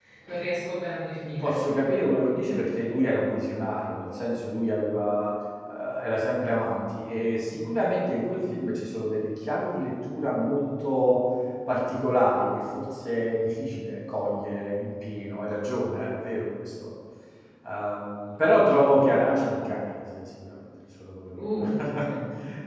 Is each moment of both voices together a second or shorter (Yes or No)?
Yes